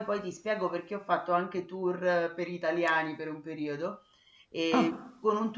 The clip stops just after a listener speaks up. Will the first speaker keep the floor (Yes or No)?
Yes